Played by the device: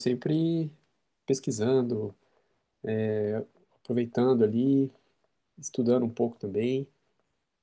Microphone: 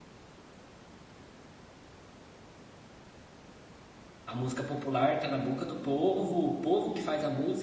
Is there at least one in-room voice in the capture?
Yes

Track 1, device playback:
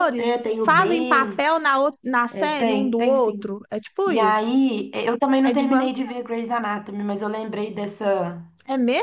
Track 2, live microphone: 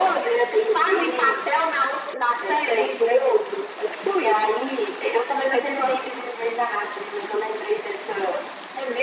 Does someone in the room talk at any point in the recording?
No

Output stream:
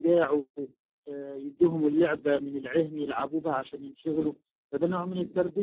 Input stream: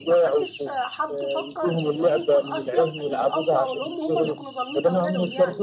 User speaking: Yes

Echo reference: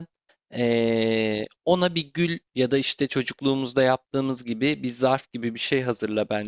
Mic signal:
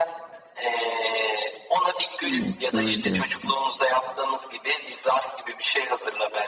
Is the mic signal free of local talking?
No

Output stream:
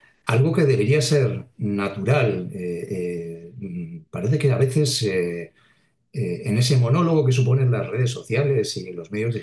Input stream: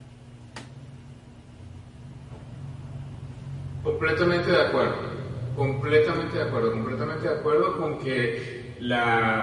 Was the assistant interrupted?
Yes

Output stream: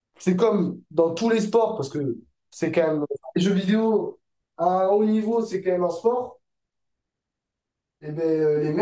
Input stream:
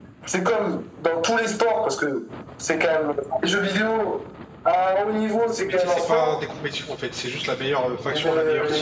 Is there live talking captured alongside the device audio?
Yes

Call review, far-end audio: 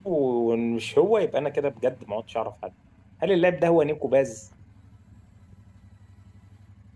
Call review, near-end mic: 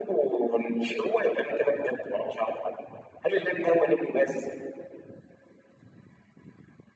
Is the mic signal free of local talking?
Yes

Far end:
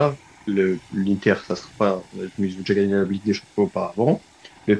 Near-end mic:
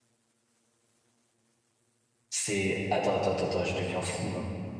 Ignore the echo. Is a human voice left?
Yes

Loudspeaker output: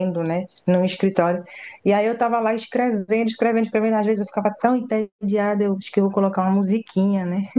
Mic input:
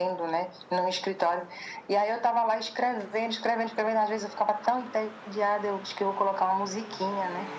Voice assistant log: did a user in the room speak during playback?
No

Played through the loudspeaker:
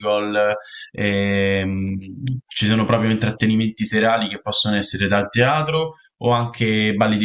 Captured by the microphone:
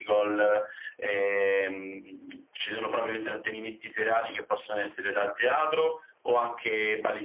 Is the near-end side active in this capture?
No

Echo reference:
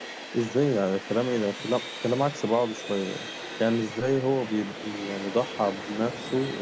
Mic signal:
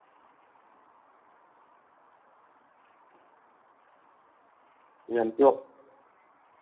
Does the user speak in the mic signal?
Yes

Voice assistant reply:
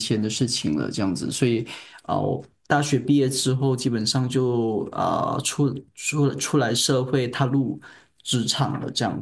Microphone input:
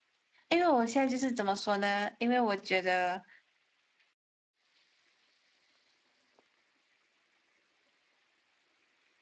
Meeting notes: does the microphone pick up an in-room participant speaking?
Yes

